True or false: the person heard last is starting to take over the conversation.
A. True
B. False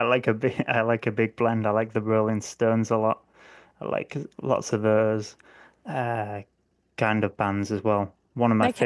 B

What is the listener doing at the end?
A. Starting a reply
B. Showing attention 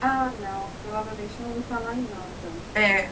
A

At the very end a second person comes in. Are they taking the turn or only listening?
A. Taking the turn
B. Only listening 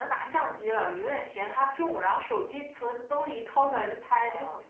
A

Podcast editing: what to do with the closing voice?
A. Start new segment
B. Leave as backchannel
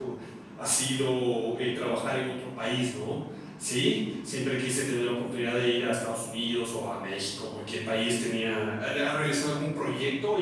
B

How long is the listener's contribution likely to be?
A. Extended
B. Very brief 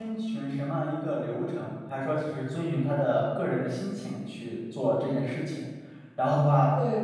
B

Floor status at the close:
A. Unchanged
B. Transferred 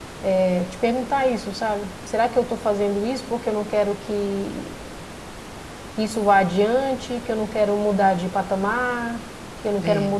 A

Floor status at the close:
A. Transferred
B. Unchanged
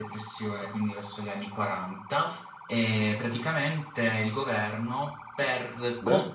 B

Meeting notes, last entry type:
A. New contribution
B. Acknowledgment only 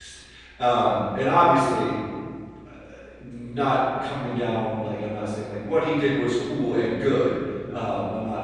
B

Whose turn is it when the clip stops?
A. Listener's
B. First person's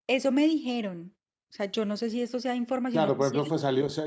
A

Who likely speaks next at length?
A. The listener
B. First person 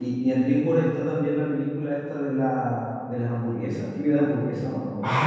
A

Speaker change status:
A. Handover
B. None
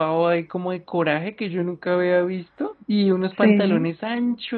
B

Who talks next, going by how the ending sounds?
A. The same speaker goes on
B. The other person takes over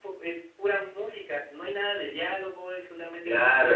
B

